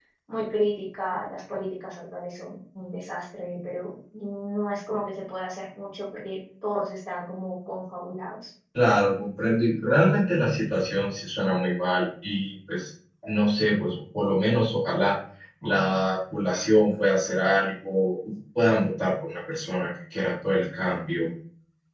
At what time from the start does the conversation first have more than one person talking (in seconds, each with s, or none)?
none